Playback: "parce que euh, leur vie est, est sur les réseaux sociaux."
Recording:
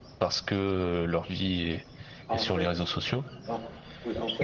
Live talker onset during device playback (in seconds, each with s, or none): 2.3 s